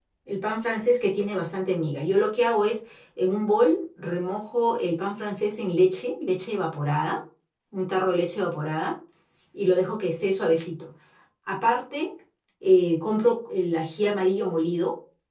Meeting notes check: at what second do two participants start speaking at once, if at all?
none

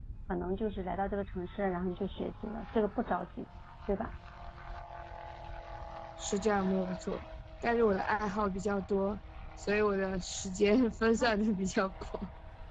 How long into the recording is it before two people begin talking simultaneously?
none

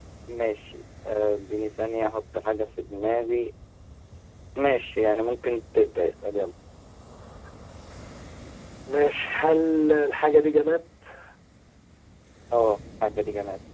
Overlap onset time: none

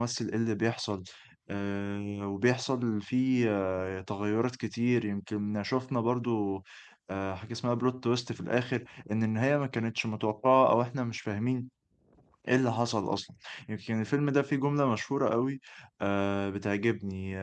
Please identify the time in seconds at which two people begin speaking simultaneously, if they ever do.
none

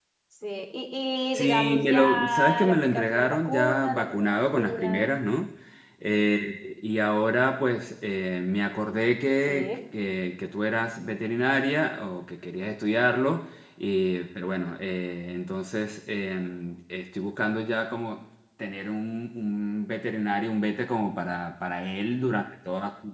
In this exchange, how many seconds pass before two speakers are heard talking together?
1.3 s

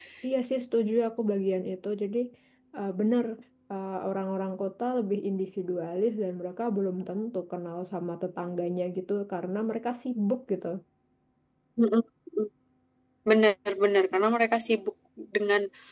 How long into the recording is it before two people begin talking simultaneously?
none

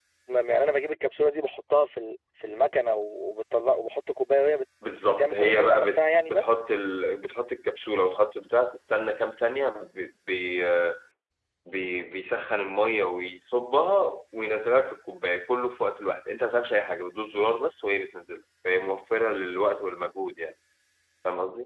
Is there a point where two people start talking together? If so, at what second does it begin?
5.1 s

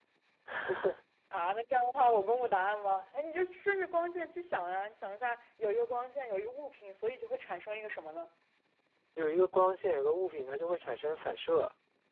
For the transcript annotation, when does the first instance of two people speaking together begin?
none

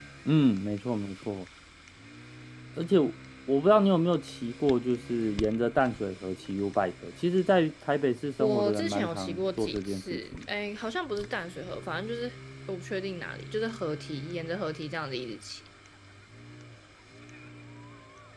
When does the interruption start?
8.4 s

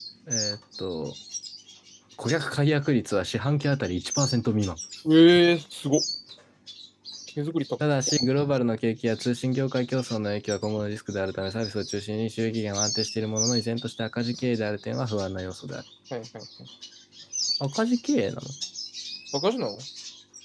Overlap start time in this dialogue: none

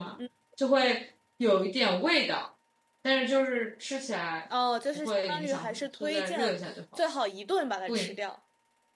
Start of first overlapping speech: 5.0 s

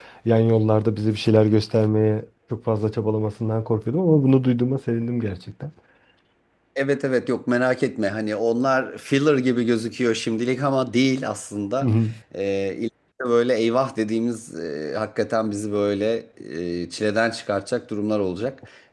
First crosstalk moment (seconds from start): none

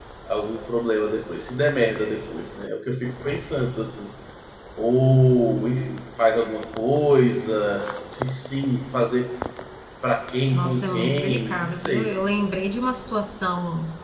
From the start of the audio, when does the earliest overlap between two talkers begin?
10.5 s

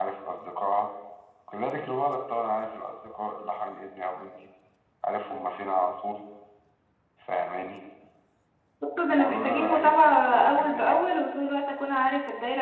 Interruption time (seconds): 9.1 s

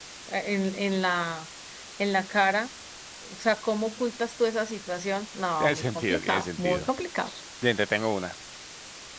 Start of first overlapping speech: 5.6 s

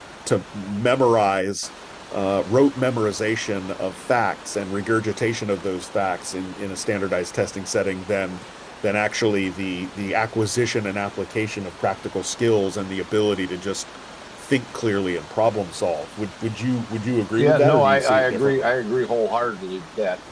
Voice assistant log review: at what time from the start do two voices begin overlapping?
17.4 s

